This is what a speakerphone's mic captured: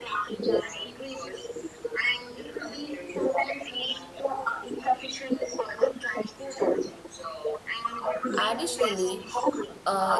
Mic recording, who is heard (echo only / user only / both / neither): both